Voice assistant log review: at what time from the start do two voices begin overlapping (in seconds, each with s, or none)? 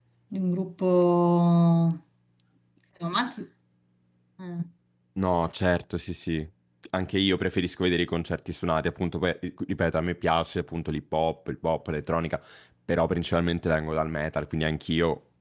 none